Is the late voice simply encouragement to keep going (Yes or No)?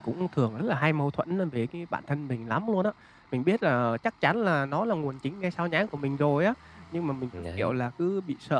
Yes